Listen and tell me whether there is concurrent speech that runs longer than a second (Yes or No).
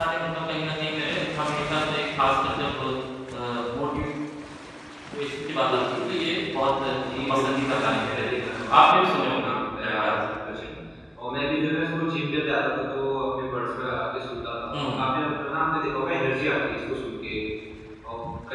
Yes